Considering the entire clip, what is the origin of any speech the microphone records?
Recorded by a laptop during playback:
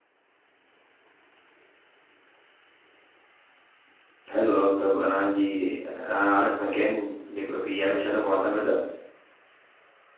user only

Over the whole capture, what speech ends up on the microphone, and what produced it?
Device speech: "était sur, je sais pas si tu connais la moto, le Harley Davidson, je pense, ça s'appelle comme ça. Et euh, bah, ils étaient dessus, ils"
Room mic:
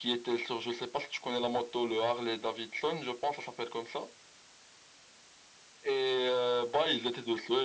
echo only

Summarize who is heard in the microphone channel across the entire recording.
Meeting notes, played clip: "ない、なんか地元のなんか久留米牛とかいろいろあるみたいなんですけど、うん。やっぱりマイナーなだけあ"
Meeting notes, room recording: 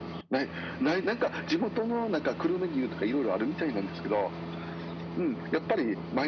echo only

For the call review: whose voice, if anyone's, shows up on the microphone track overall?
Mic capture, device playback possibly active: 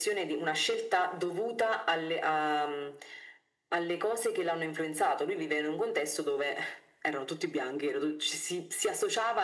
echo only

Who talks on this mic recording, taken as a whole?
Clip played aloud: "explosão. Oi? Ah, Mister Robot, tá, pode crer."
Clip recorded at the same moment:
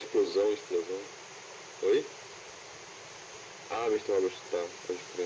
echo only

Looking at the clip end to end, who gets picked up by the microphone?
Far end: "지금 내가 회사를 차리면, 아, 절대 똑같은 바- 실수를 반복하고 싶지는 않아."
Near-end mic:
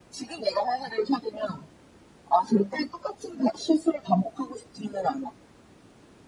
echo only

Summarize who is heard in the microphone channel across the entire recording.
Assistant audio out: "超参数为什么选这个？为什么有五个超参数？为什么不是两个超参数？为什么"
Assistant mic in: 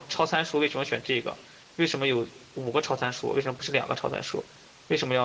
echo only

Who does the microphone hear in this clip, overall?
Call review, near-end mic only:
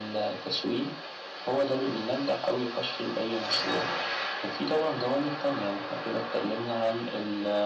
echo only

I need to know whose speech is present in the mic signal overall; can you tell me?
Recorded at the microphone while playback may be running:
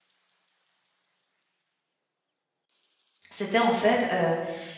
user only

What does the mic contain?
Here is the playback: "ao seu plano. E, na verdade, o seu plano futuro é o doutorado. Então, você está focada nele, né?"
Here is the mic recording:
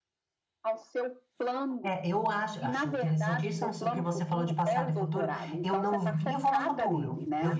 both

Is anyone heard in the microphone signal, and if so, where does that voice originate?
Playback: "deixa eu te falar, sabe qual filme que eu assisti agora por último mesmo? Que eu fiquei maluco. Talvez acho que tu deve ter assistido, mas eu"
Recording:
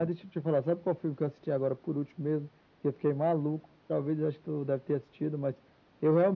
echo only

